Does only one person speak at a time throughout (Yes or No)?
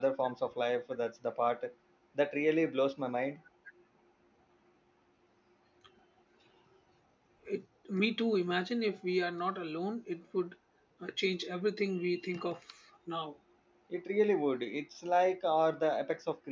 Yes